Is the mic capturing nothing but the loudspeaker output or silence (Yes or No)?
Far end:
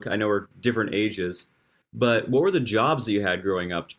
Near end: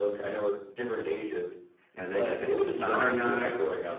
No